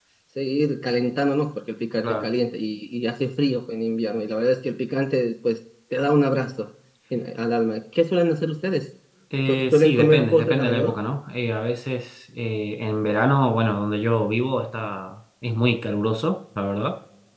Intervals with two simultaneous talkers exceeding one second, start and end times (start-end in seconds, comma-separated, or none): 9.5-11.0